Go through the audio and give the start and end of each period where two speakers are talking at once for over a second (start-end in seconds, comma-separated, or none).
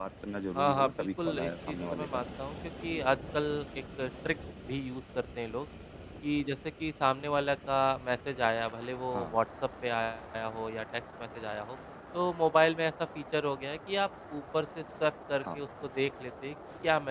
0.6-2.2